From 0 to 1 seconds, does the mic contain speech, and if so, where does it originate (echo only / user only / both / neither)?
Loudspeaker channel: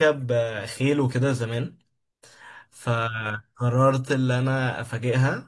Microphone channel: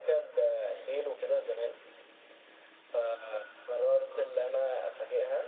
echo only